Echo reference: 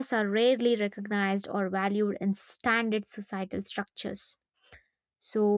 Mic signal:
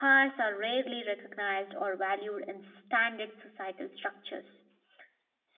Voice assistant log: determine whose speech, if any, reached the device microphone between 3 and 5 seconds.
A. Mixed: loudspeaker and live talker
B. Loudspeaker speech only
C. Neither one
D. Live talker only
B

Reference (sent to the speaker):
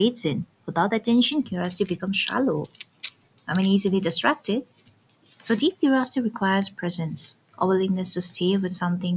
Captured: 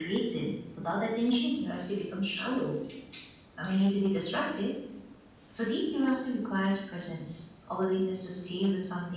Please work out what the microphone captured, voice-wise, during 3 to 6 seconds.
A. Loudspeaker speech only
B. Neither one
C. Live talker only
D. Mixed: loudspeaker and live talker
A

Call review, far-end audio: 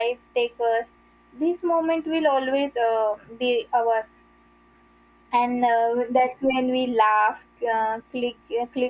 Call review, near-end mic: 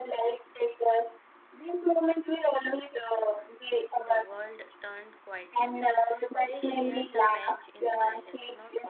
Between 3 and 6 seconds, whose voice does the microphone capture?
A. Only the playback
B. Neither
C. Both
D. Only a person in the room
C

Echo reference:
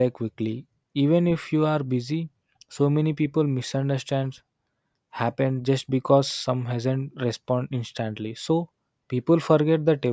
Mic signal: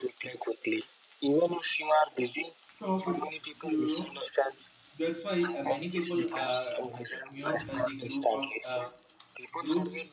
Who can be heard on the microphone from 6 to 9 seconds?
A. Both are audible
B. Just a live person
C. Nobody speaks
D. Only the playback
A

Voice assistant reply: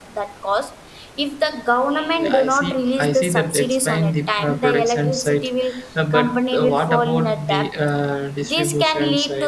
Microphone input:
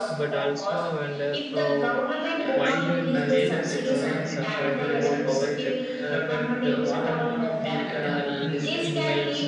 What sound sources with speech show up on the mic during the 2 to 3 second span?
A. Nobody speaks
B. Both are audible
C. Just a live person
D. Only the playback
B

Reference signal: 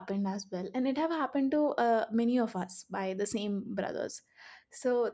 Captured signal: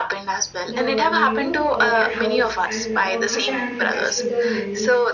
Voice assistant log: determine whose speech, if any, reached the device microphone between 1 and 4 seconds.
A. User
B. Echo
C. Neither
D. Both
D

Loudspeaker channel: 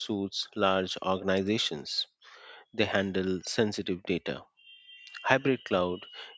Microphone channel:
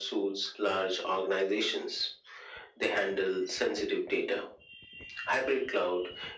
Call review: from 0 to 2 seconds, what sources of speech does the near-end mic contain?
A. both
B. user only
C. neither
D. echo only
D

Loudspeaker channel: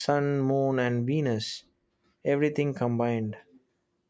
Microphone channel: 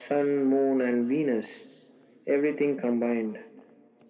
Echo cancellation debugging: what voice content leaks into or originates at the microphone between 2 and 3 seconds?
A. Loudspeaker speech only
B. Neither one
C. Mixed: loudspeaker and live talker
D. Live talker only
A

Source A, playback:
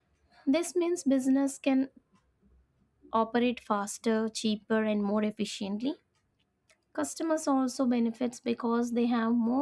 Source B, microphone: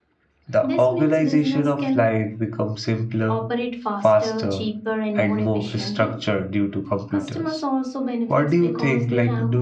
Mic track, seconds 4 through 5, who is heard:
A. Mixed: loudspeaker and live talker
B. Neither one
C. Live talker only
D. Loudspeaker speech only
A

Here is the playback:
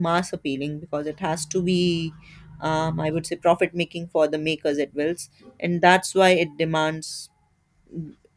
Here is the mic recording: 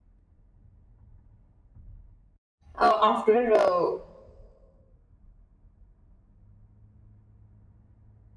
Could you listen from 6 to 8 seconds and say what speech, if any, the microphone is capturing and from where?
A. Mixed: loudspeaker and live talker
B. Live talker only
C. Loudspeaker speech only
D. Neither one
D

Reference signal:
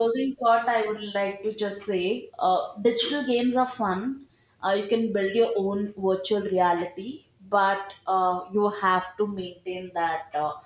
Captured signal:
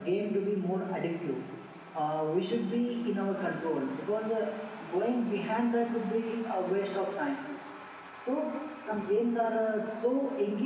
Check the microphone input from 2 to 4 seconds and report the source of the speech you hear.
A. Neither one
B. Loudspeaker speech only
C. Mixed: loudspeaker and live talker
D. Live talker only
D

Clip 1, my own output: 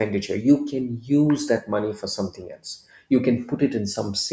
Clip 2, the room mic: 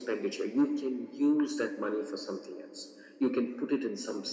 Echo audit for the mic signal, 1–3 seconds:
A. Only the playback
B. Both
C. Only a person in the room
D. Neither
A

